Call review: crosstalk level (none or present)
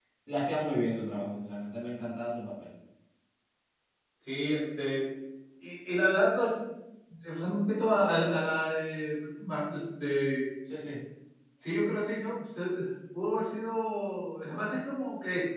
none